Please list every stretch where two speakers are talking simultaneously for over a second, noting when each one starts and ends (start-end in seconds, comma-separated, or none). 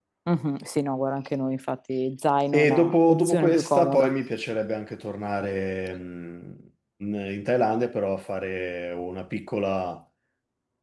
2.5-4.1